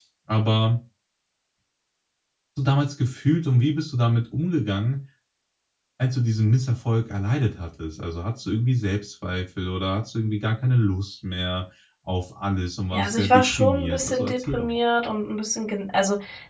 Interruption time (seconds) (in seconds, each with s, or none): 12.9 s